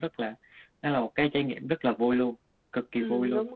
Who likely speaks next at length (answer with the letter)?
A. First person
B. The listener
B